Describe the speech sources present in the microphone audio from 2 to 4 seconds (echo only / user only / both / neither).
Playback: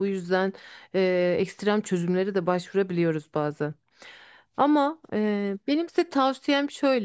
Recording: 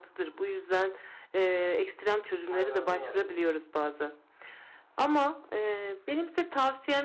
both